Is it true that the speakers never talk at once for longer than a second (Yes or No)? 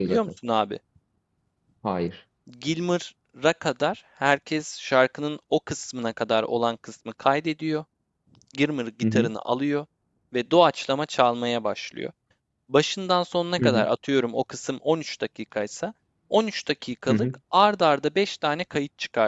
Yes